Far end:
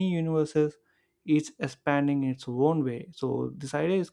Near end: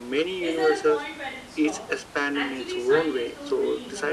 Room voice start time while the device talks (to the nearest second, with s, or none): 0 s